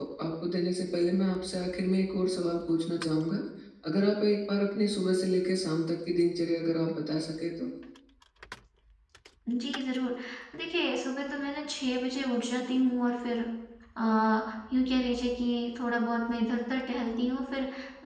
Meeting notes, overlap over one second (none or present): none